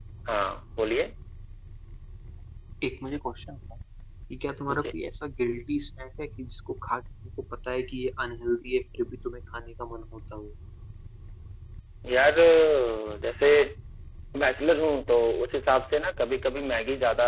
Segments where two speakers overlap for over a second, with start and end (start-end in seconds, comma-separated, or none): none